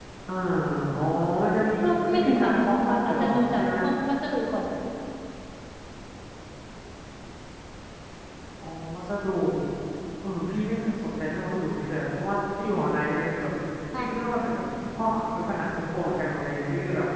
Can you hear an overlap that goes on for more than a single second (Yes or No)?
Yes